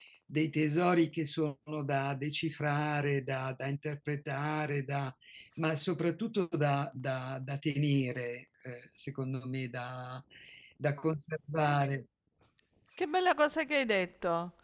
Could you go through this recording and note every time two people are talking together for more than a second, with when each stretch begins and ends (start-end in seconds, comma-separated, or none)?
none